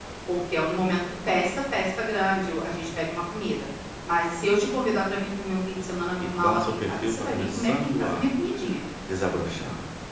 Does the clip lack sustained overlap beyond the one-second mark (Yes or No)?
No